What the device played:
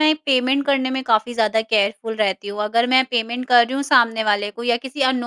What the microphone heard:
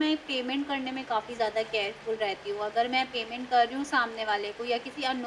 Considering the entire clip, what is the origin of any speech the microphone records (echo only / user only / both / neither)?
echo only